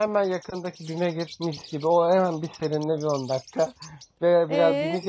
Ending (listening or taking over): taking over